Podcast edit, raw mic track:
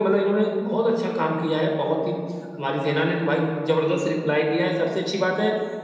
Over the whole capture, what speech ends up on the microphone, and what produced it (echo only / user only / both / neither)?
echo only